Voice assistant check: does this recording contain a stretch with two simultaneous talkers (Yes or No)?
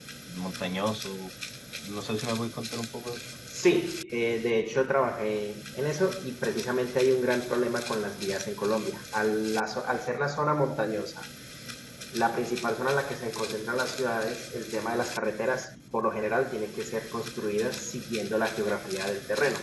No